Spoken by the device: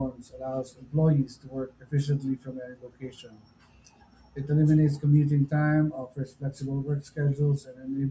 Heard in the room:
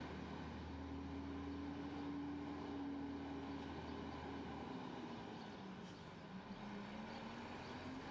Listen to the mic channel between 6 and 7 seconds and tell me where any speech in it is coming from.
neither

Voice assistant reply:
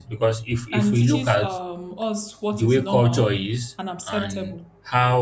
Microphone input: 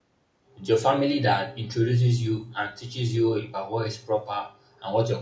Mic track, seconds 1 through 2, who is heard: user only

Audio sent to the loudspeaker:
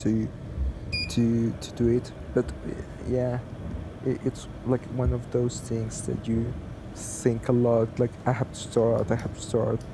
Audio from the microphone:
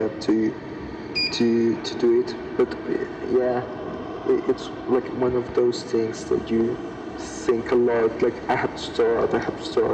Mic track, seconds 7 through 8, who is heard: echo only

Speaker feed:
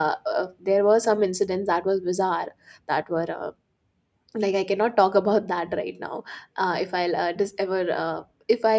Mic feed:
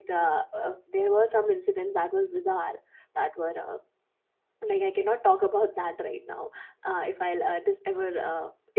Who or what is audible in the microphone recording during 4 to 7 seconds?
echo only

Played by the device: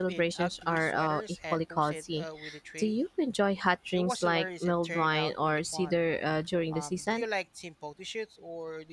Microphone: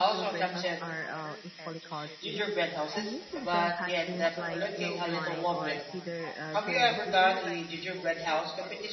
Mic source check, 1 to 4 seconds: both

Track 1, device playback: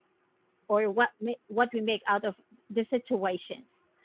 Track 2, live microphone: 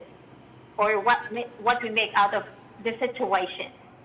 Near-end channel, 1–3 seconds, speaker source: echo only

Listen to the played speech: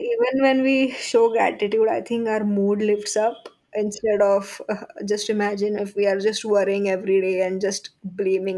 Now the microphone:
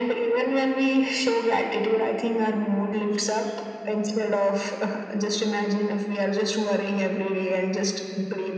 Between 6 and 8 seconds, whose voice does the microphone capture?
echo only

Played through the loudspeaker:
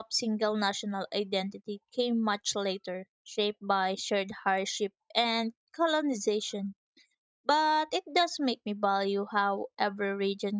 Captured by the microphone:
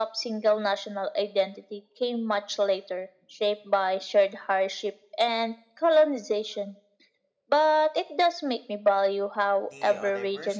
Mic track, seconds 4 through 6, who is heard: echo only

